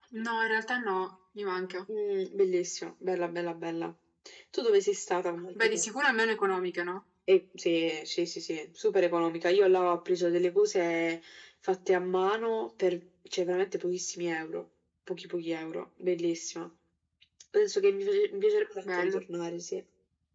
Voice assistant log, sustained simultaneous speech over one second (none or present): none